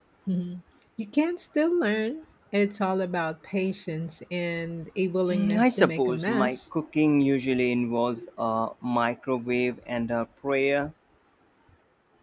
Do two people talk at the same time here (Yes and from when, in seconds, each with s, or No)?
Yes, from 5.3 s